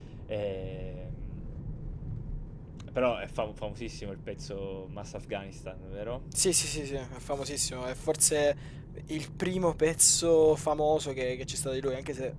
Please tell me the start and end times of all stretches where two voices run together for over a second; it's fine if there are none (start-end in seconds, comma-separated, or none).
none